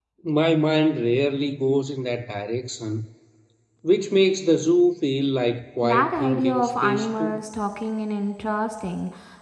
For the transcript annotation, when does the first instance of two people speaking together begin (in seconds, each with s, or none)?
5.8 s